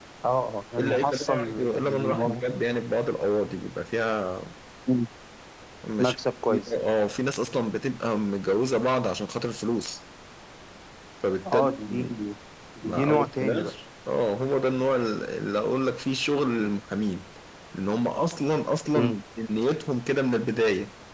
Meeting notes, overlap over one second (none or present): present